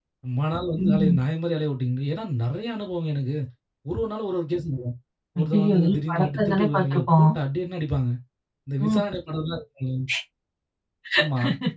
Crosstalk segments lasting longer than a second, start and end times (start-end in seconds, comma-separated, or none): 5.4-7.3